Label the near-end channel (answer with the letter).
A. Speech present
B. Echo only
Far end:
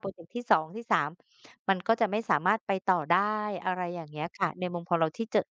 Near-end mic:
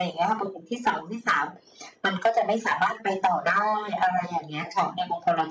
B